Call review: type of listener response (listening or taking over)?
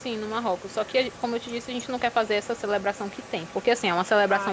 listening